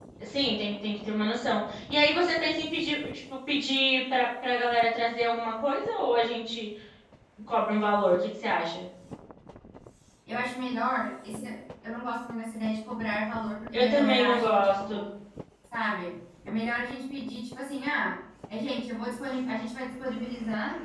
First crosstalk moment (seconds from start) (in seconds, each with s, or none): 13.7 s